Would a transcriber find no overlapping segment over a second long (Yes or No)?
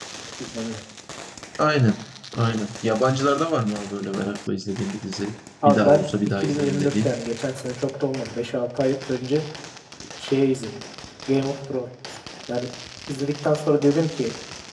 No